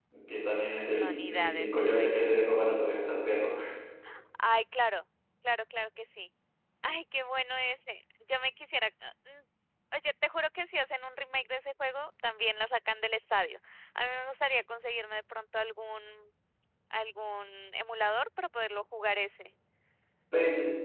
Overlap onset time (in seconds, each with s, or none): 0.8 s